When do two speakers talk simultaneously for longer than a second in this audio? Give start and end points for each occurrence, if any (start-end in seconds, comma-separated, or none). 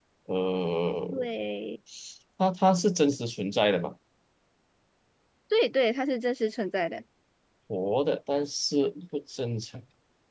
none